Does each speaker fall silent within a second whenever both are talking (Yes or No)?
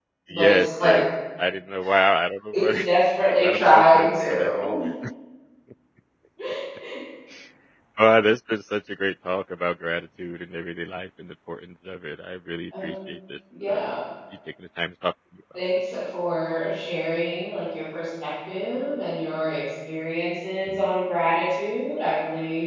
No